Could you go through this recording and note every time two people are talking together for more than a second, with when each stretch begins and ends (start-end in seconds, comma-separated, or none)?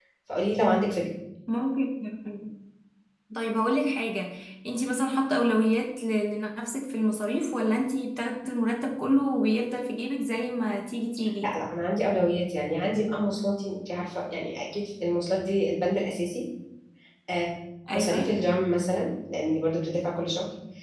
none